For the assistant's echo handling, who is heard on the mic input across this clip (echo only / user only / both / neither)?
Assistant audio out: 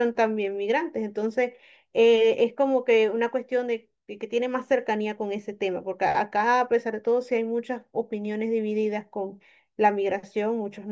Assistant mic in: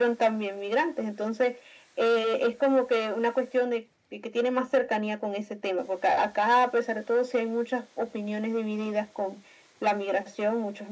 echo only